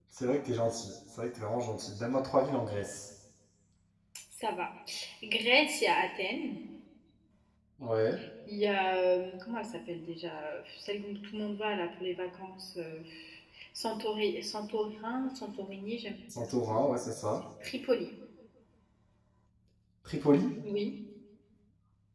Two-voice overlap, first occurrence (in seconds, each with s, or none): none